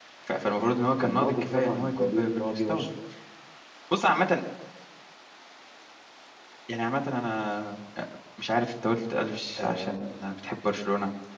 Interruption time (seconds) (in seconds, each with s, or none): 1.0 s